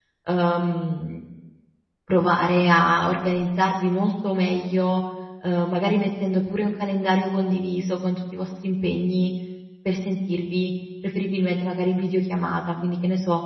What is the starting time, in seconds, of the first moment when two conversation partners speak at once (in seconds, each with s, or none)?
none